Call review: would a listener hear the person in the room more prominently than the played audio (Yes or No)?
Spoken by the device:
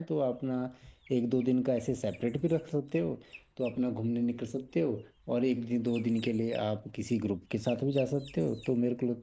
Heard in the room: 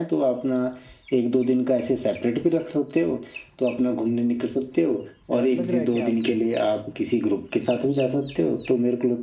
No